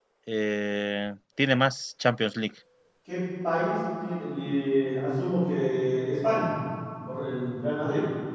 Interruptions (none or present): none